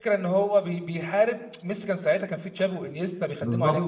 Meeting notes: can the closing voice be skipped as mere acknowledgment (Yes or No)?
No